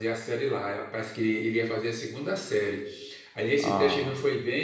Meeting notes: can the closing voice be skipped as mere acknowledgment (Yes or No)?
Yes